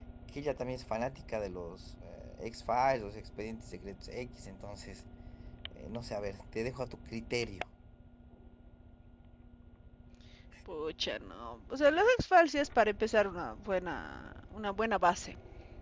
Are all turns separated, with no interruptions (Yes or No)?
Yes